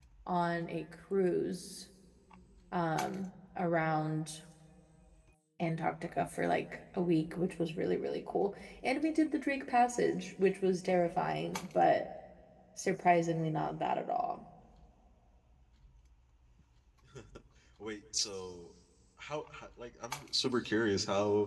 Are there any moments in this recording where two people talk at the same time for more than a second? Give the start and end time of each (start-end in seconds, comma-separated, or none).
none